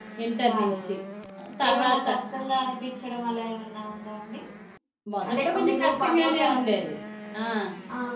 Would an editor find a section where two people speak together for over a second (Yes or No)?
Yes